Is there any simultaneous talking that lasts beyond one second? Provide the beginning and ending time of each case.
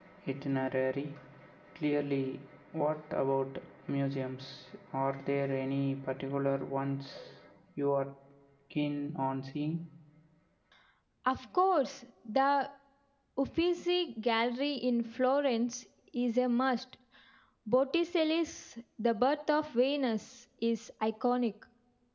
none

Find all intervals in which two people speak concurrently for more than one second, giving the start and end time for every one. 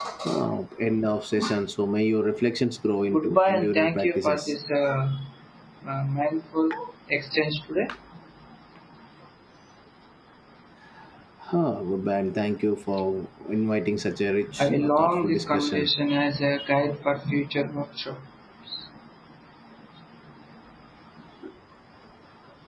3.1-4.5, 14.6-15.9

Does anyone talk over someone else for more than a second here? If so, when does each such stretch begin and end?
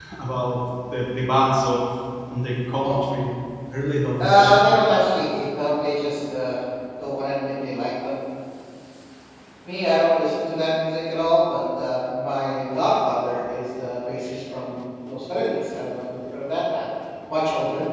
none

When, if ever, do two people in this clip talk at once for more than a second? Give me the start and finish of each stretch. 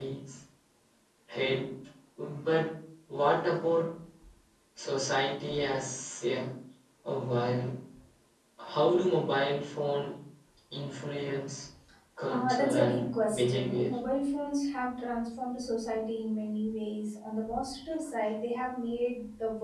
12.3-13.9

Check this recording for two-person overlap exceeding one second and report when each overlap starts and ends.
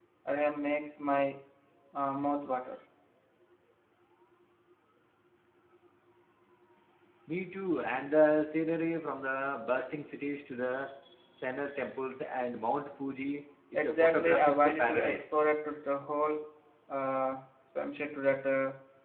13.7-15.2

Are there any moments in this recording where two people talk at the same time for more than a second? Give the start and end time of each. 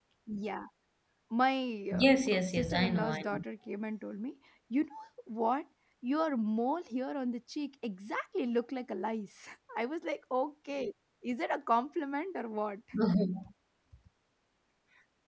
1.9-3.4

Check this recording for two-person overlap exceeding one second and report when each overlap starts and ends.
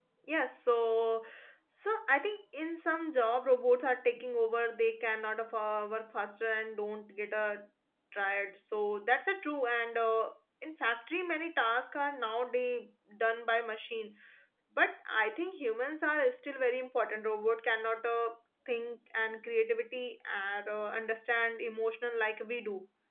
none

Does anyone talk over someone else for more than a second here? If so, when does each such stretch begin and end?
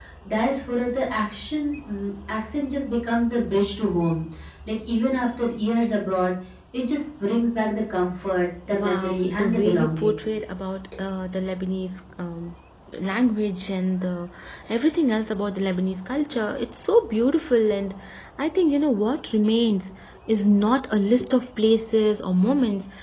8.8-10.2

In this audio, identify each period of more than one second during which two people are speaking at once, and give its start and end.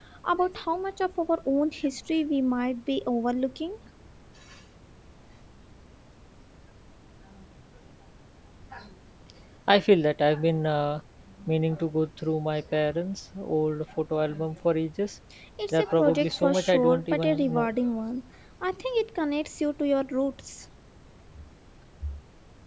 15.7-17.7

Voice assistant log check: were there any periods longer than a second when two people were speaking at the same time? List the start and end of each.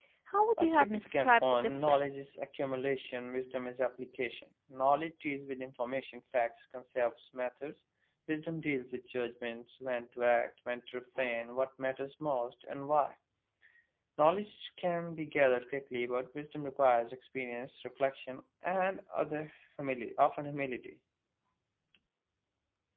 0.6-2.2

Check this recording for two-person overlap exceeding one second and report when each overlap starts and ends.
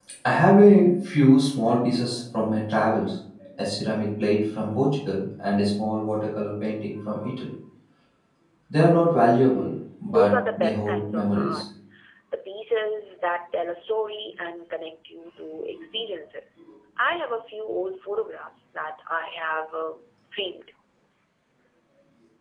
10.1-11.6

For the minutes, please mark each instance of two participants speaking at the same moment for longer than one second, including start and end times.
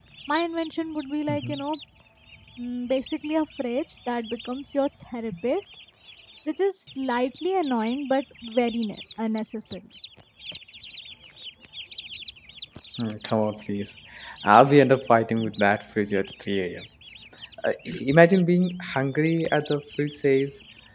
none

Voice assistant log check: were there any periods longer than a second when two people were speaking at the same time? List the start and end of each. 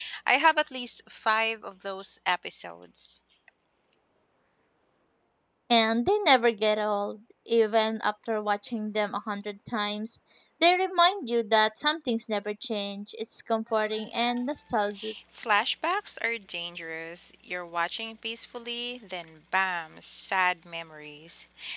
none

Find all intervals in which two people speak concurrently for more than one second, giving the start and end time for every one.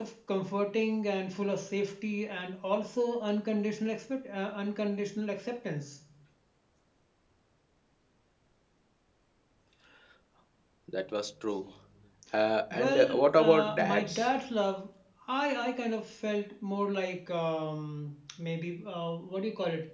12.7-14.2

